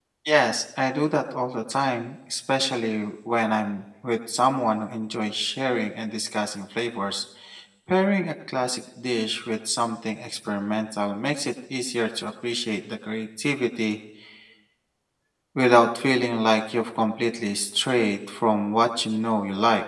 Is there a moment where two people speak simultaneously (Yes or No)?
No